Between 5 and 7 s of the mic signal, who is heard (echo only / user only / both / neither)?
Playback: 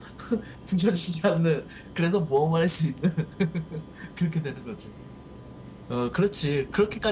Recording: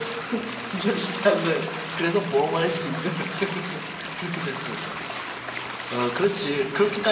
echo only